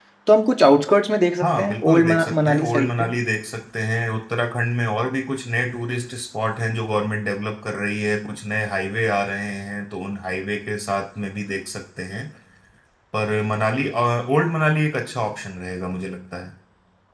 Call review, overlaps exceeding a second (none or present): present